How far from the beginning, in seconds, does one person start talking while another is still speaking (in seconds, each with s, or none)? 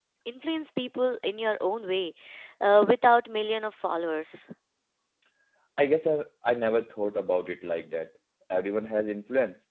none